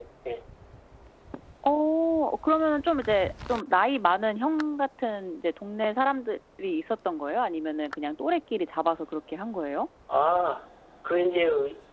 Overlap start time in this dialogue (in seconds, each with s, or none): none